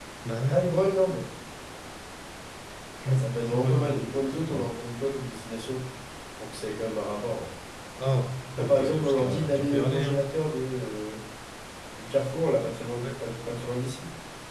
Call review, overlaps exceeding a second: present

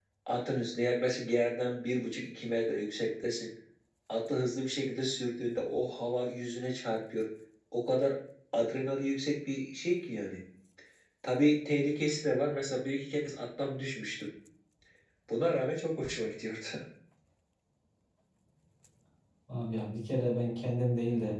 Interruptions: none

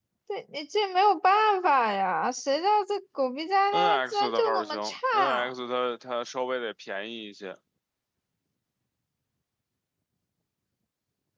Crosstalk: present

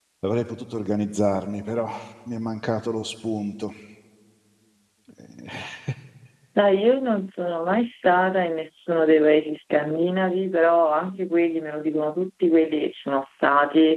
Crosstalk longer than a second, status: none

